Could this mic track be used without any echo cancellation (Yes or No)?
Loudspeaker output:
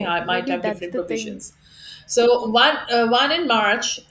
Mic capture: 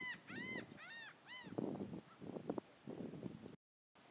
Yes